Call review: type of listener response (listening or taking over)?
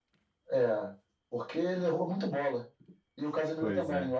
listening